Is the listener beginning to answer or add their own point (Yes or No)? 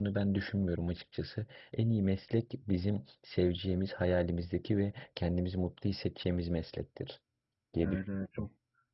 Yes